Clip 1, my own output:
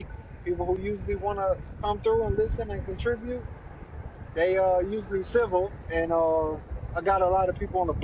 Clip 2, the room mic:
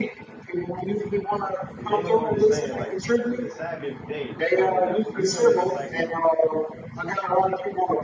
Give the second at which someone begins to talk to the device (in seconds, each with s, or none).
1.8 s